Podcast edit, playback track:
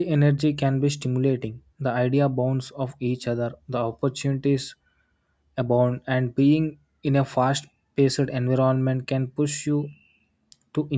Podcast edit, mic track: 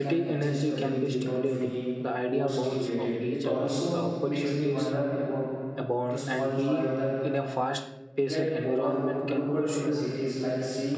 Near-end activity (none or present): present